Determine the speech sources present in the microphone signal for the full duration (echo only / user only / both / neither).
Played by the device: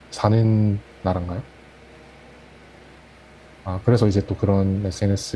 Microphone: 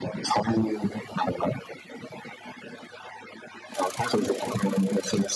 echo only